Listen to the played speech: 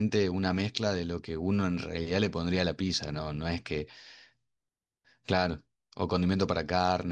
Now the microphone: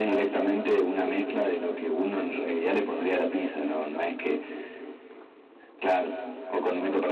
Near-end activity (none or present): none